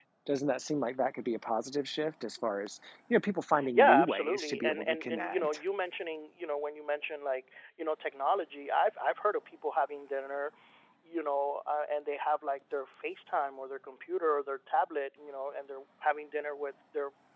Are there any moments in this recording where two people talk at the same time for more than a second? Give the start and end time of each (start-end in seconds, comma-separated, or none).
3.8-5.6